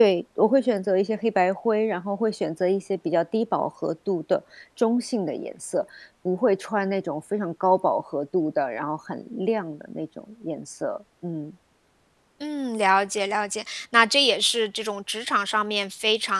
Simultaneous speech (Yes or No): No